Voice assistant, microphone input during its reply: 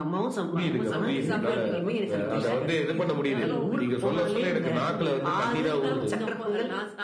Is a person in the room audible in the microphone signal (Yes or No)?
Yes